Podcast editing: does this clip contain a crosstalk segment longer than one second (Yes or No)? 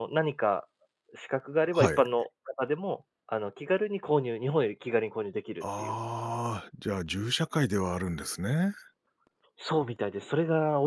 No